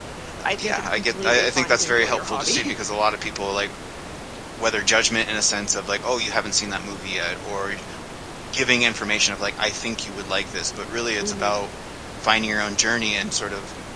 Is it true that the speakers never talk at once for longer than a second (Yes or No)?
No